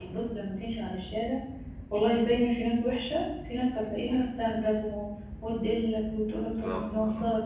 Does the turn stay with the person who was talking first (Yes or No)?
Yes